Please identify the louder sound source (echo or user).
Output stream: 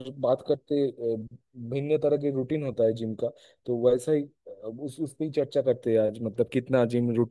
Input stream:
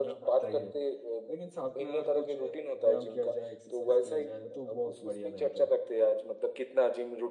echo